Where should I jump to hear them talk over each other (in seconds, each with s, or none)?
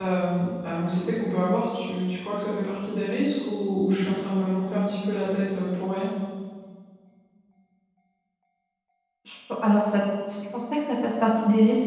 none